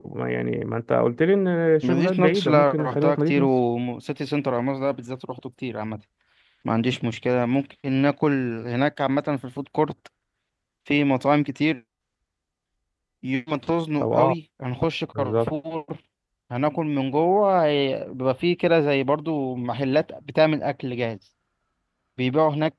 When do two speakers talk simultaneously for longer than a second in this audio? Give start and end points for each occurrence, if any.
1.8-3.5

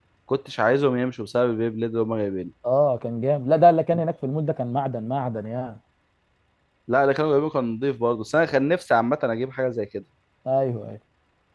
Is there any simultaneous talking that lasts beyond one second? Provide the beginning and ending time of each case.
none

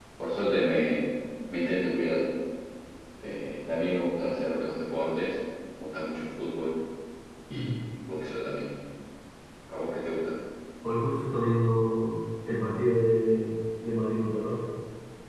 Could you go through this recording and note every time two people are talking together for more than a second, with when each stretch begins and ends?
none

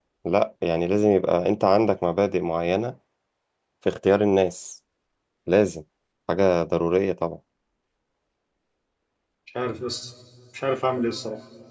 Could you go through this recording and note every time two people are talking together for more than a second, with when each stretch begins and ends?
none

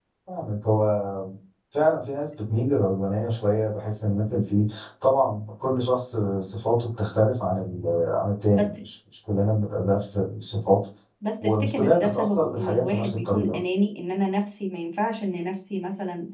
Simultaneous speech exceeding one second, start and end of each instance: 11.4-13.6

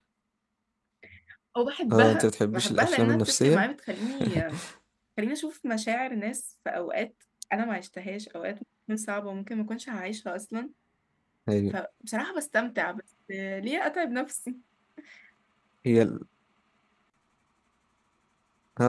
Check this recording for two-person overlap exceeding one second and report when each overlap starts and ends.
1.9-3.7

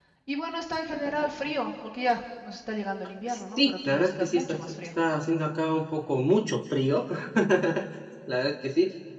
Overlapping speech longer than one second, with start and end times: 3.3-4.7

